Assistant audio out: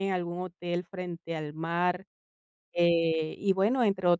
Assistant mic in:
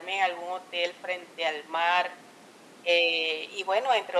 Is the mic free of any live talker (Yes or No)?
Yes